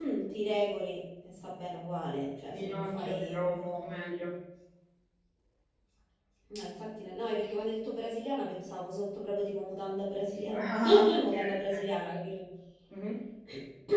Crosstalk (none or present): present